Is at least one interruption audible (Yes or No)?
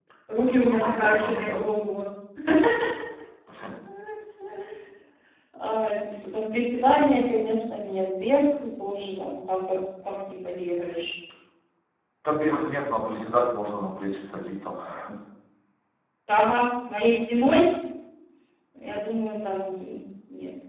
Yes